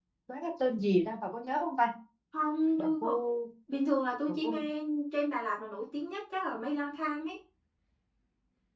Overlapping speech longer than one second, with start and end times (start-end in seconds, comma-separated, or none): none